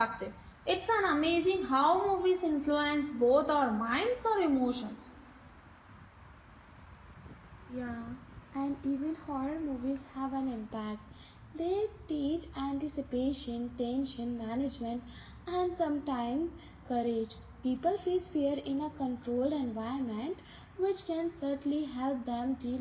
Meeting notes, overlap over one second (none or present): none